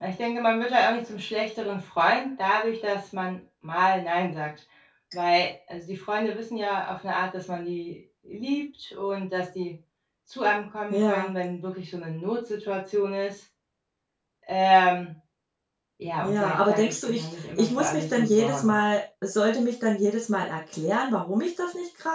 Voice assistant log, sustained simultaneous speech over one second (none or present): present